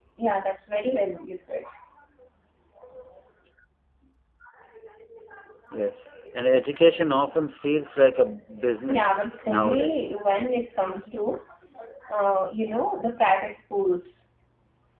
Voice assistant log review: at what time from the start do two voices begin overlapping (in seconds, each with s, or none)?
8.9 s